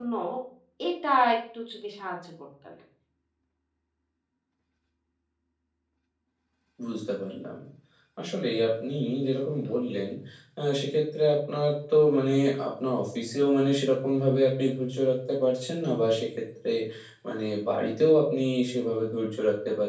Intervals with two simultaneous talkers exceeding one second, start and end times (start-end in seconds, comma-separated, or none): none